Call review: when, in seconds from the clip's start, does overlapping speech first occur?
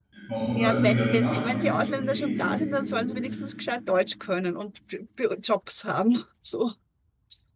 1 s

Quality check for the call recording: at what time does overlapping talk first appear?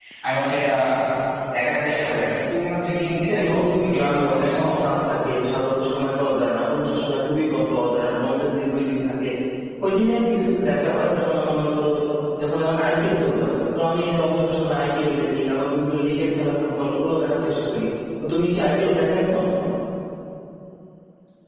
3 s

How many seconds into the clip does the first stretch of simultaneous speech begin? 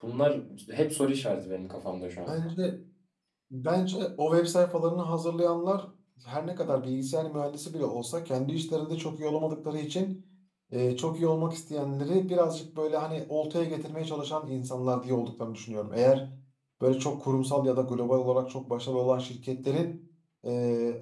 none

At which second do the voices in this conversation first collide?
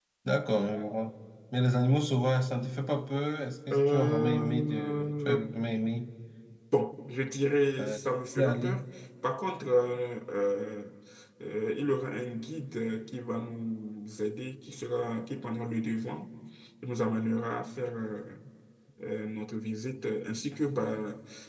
4 s

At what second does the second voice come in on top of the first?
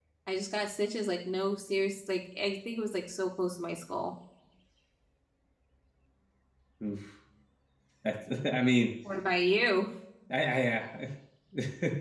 none

